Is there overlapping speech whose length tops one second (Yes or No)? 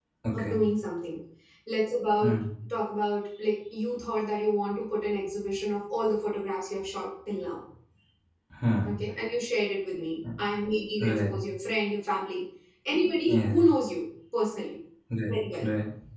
No